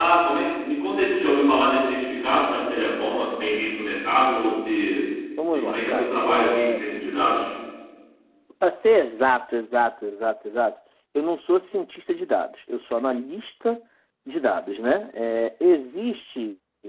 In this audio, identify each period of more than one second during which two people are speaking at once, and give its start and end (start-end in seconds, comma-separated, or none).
5.5-6.8